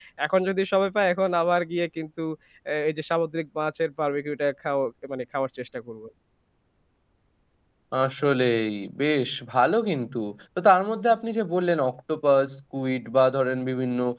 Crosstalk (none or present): none